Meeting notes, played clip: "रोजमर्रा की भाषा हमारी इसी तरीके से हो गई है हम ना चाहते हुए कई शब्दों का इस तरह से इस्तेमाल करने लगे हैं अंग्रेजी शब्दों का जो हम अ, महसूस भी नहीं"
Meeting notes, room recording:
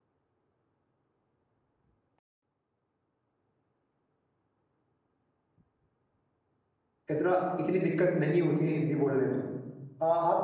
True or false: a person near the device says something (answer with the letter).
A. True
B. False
A